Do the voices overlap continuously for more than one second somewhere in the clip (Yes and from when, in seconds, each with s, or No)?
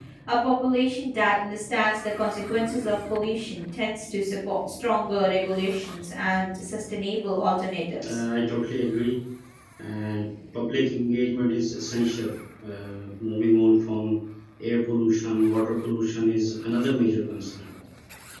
No